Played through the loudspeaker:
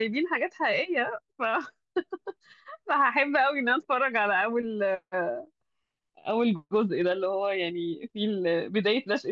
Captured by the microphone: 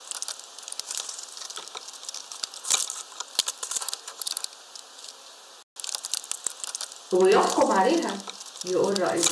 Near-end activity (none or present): present